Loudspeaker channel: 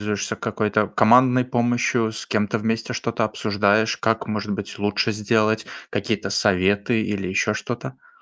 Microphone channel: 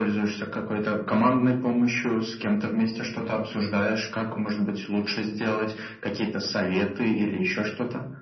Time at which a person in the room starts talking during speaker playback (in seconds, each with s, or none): none